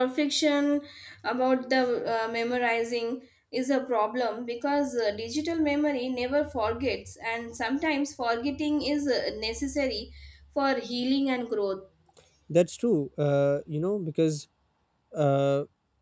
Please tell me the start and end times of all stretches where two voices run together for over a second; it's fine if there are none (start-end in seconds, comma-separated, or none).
none